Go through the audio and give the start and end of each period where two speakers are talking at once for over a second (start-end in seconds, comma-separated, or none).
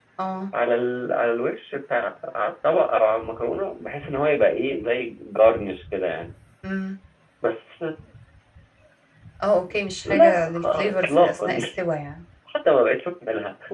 10.1-11.6